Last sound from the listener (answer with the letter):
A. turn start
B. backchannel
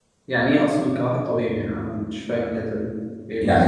A